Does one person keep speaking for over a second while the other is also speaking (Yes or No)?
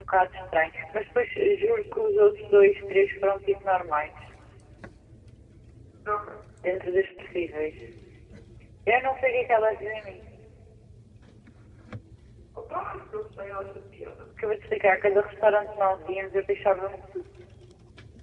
No